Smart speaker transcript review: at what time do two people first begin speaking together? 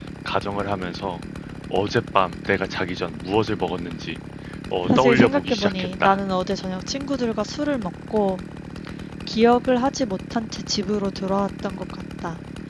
4.9 s

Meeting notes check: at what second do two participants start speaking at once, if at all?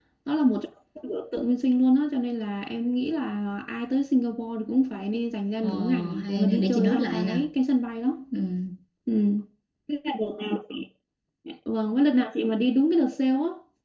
5.6 s

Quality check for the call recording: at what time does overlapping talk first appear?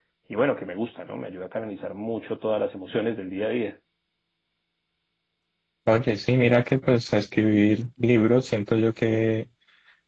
none

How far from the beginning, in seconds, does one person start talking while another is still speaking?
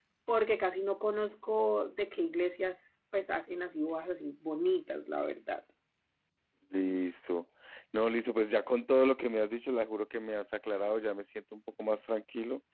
none

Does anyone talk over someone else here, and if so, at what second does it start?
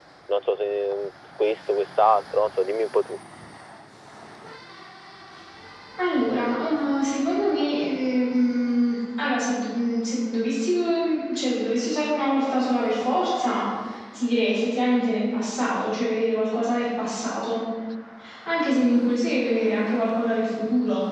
none

